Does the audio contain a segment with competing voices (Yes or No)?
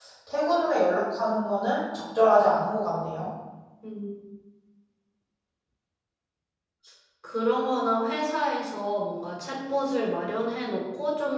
No